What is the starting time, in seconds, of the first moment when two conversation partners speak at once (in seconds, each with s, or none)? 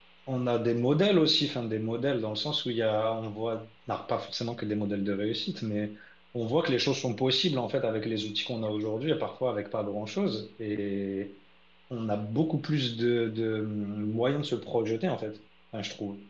none